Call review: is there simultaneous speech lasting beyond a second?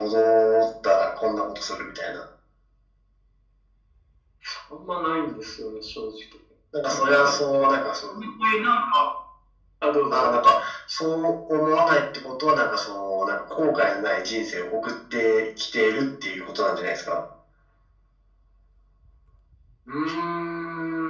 No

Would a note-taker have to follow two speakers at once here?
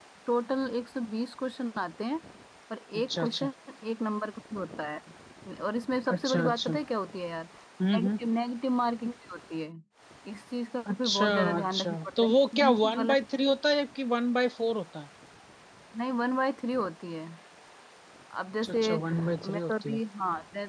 Yes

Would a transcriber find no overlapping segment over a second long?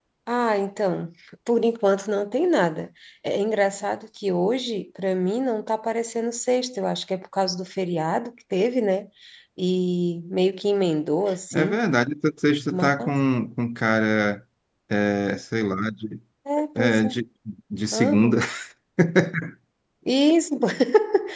Yes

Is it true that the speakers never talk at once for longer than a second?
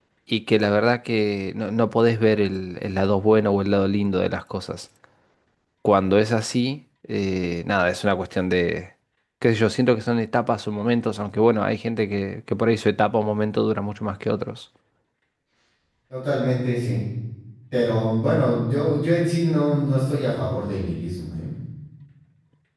Yes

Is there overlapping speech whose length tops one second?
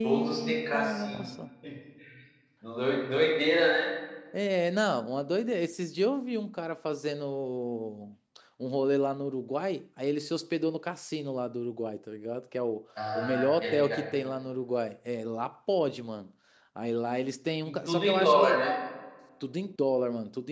Yes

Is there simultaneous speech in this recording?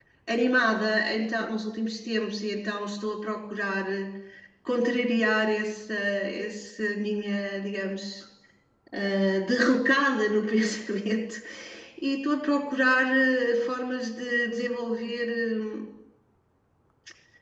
No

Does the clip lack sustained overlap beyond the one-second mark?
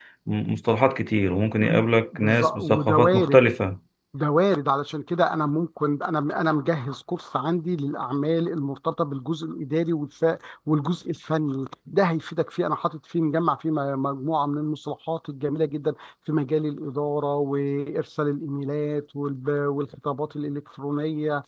No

